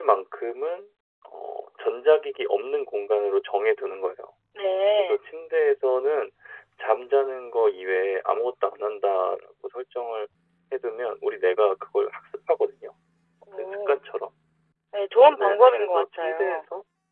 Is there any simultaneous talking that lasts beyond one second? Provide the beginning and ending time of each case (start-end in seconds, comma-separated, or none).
15.4-16.6